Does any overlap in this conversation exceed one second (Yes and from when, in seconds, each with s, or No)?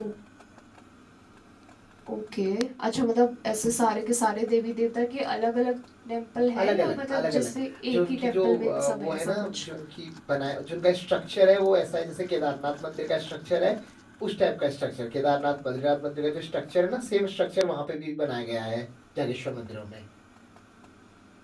Yes, from 6.6 s